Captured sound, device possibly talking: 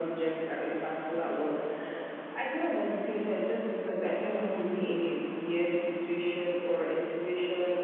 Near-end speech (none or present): none